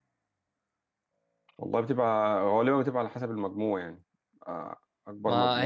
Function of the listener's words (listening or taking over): taking over